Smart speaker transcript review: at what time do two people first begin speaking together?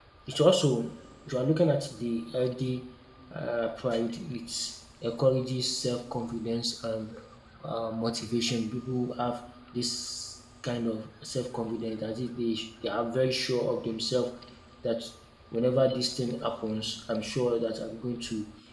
none

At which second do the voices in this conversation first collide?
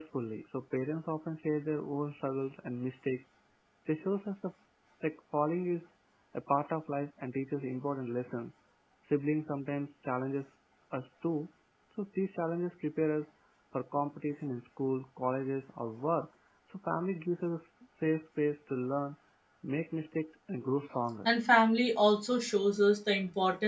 none

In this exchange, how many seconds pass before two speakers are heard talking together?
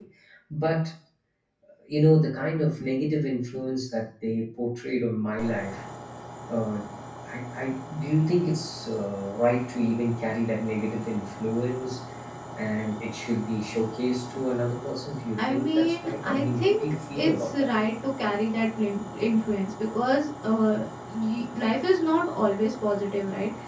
15.4 s

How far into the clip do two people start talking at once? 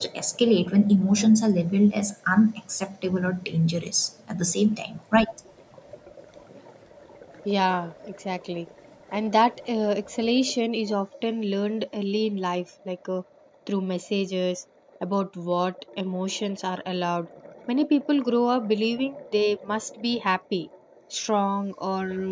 none

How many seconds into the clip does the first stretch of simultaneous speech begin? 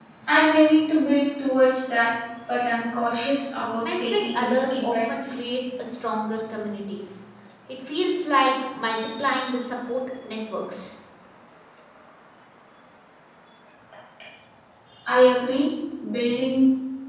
3.8 s

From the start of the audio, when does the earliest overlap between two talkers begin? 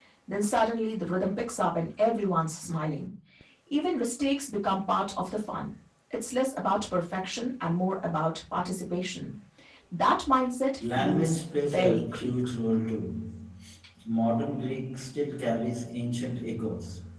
10.8 s

